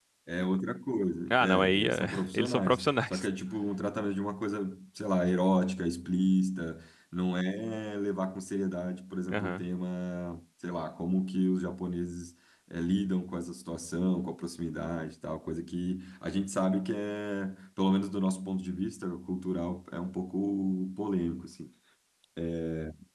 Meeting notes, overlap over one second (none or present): present